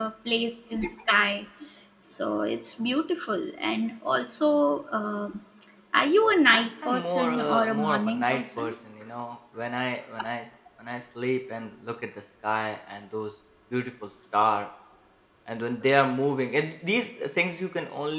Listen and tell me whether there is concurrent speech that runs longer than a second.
Yes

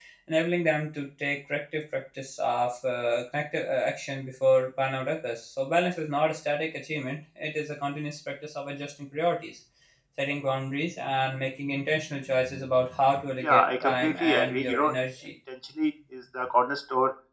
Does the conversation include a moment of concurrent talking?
Yes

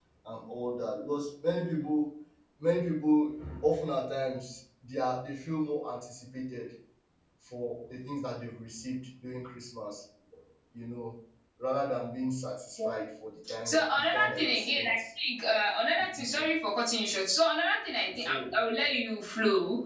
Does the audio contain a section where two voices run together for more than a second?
Yes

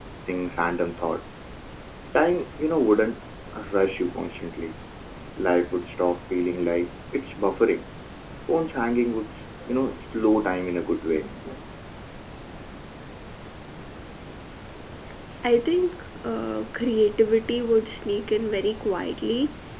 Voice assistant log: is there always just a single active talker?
Yes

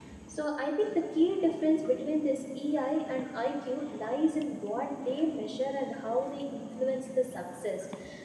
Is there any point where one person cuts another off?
No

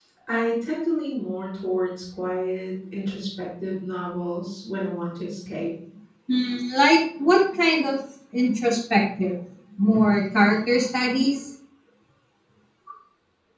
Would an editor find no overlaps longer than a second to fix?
Yes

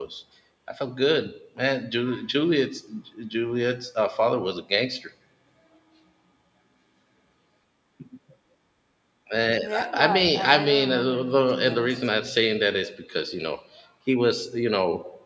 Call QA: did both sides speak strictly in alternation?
No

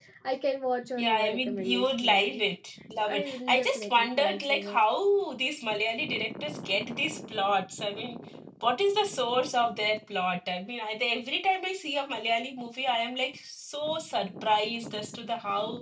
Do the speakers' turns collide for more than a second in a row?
Yes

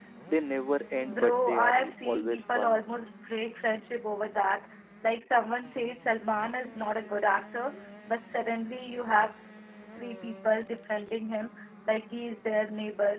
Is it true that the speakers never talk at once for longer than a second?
No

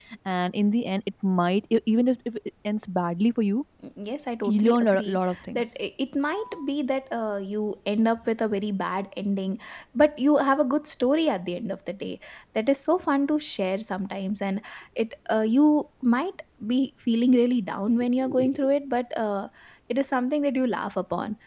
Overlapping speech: Yes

